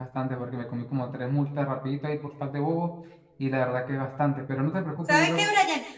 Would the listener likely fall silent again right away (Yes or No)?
No